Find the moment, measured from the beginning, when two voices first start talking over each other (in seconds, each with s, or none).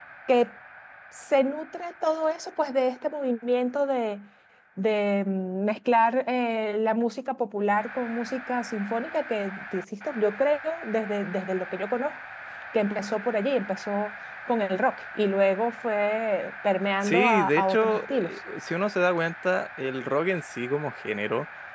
17.0 s